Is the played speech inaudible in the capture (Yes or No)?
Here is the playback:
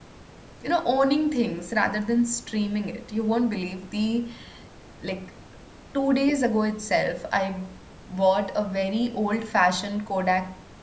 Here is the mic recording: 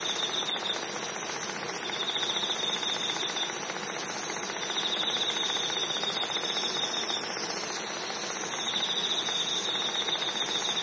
Yes